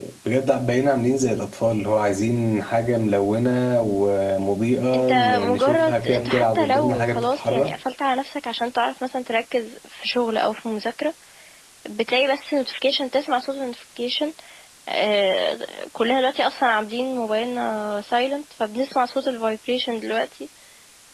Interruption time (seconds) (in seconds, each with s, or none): 4.9 s